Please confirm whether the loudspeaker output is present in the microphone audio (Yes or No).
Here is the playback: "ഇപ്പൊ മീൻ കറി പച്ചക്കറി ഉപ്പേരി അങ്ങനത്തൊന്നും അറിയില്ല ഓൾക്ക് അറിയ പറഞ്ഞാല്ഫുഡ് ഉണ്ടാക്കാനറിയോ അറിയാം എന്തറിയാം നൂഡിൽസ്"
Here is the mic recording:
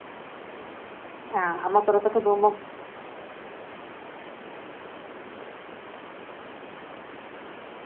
No